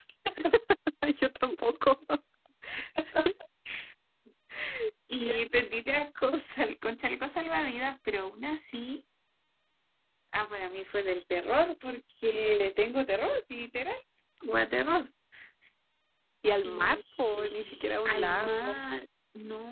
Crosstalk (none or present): present